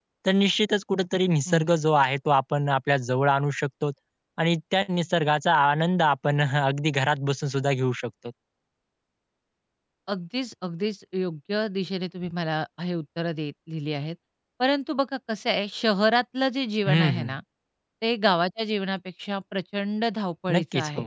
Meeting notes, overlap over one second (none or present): none